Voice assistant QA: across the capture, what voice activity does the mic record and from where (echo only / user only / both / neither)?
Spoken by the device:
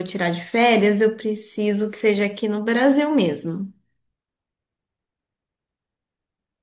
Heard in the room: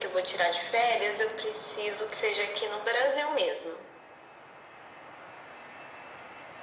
echo only